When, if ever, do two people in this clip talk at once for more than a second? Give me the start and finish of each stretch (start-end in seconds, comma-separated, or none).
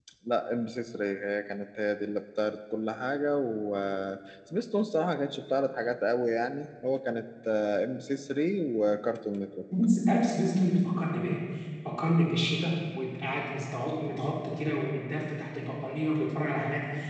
none